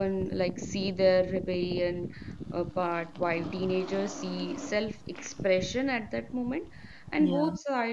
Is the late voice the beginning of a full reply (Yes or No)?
No